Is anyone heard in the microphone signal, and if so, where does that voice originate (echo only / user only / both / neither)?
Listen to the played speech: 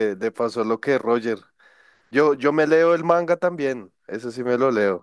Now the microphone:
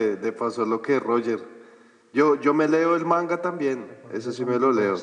both